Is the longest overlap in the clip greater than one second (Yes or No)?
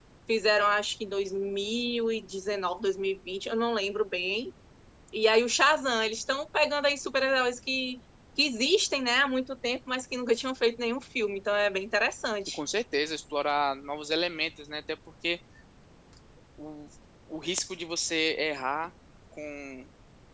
No